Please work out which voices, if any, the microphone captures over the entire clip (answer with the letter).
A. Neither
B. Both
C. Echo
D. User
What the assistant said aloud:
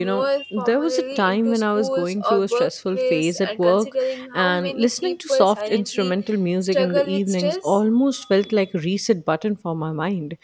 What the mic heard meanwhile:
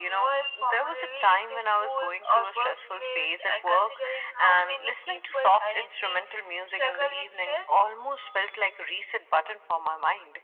C